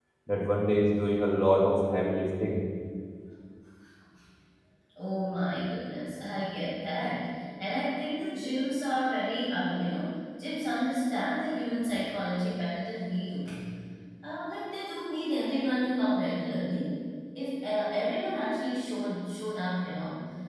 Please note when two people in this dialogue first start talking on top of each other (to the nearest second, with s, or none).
none